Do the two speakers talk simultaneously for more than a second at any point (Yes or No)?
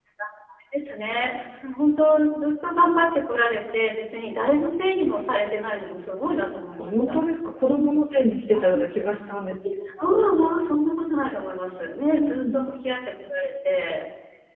No